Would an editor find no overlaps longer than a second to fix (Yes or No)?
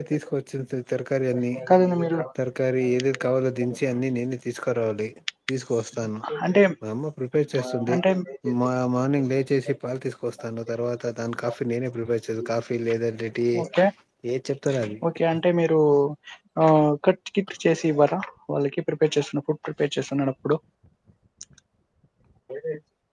Yes